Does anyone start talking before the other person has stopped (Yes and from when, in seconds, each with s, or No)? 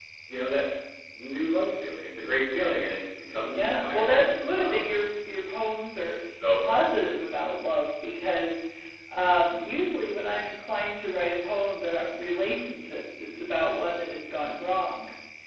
Yes, from 3.5 s